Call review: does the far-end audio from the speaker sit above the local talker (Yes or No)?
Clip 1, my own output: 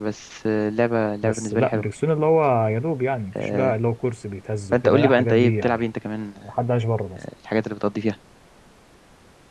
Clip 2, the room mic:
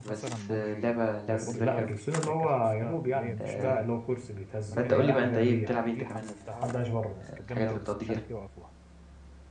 Yes